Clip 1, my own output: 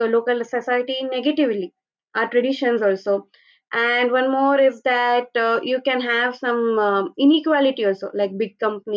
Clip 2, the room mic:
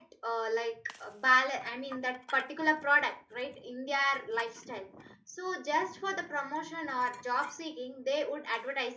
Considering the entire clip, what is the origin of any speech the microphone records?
user only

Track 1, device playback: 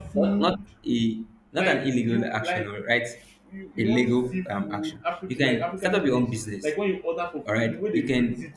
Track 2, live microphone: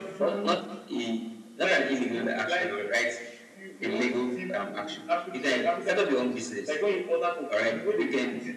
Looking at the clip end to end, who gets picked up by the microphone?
echo only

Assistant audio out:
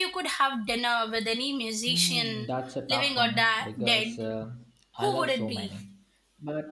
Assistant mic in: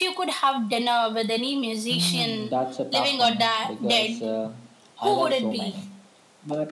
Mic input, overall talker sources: echo only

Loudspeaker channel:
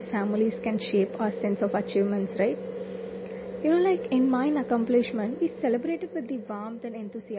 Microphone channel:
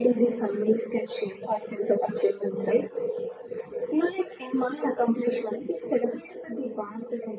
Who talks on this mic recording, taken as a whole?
echo only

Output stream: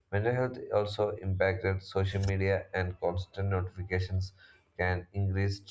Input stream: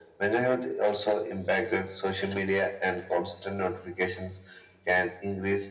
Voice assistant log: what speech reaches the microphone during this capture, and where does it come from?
echo only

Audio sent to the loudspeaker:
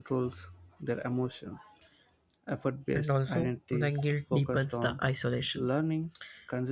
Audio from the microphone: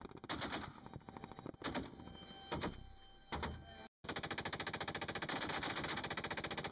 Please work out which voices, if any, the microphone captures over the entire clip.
neither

